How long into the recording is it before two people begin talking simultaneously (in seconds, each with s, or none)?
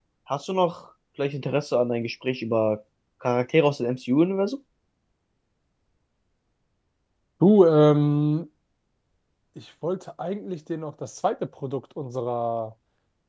none